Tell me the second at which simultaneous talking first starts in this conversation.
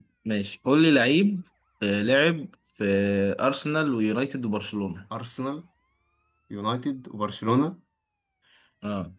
none

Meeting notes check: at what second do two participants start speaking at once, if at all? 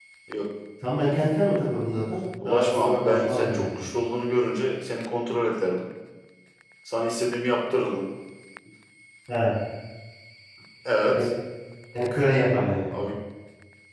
2.4 s

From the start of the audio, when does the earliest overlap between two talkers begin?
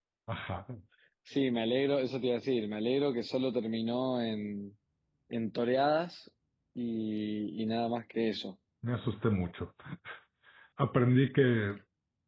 none

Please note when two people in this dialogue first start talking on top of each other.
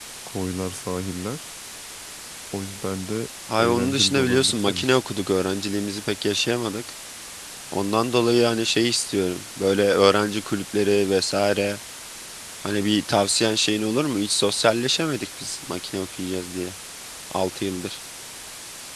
3.5 s

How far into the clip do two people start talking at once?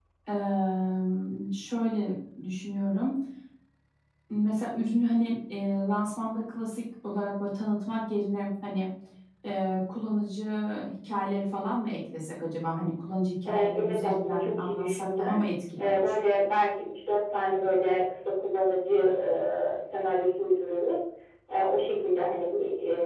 13.4 s

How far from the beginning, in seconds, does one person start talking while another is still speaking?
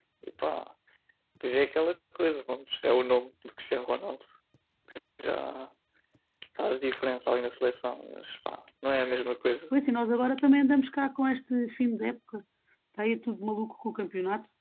none

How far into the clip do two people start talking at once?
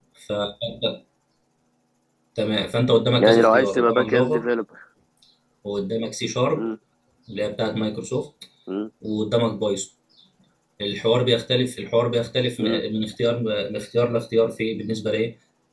3.2 s

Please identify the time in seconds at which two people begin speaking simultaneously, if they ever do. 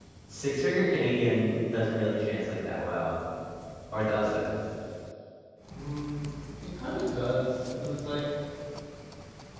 none

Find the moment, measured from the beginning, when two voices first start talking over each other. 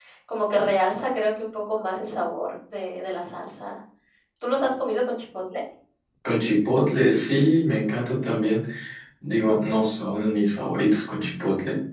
none

